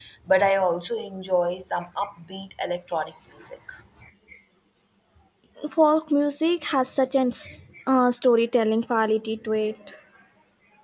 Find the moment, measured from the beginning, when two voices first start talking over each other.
none

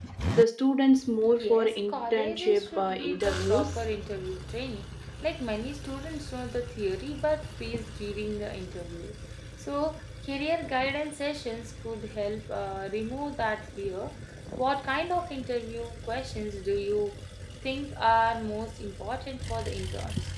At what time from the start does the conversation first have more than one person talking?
1.3 s

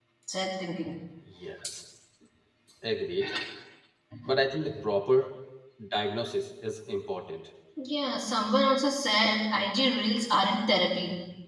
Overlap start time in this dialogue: none

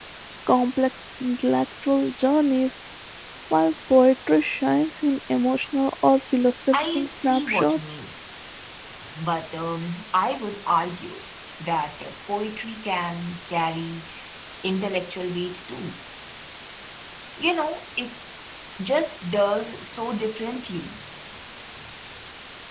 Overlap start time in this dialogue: 6.7 s

